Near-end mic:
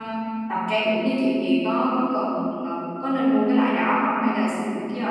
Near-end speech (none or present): present